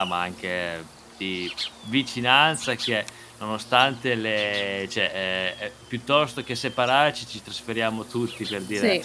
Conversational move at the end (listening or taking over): listening